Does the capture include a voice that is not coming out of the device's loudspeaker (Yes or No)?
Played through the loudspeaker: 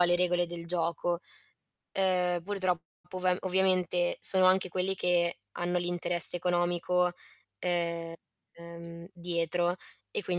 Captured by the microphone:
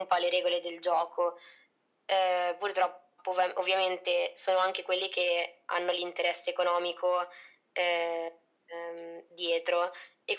No